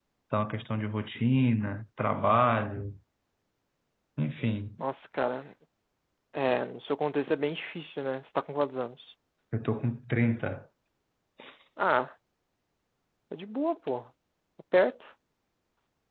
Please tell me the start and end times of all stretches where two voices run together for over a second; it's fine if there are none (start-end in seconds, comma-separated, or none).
none